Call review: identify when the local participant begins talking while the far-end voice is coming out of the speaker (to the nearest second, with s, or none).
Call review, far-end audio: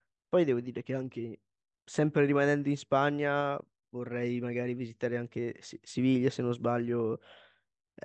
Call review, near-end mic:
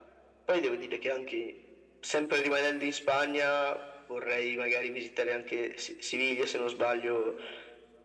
none